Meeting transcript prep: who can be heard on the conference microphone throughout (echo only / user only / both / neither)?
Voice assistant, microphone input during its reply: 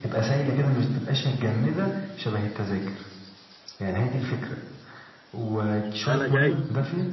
both